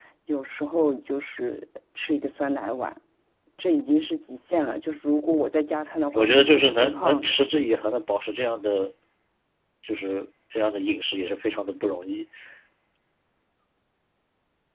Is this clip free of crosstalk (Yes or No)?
No